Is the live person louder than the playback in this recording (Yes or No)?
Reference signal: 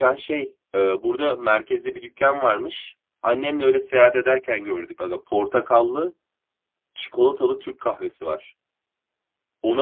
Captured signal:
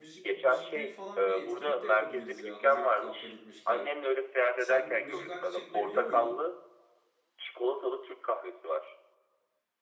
No